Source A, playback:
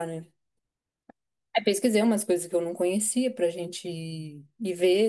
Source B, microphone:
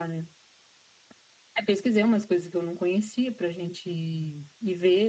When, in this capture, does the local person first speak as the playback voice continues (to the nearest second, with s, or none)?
none